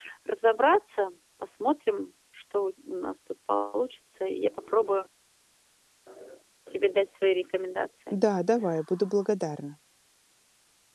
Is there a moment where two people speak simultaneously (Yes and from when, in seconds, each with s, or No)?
No